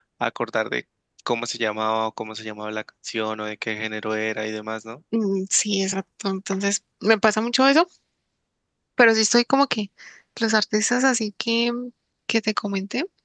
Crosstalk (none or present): none